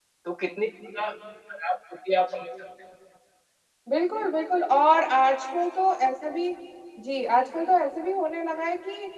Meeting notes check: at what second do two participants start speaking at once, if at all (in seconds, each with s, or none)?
none